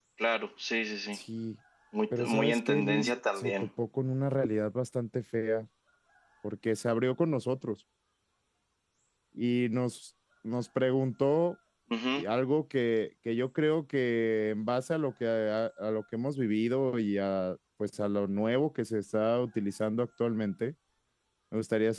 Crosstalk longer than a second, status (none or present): present